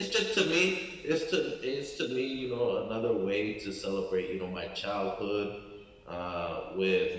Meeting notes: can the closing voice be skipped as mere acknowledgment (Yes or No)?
Yes